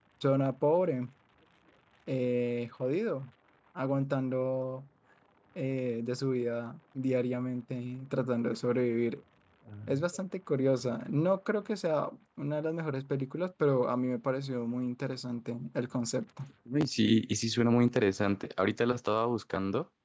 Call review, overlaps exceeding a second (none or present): none